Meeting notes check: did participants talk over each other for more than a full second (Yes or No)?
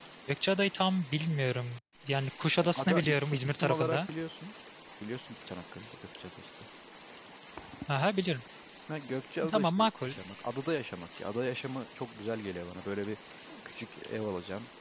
Yes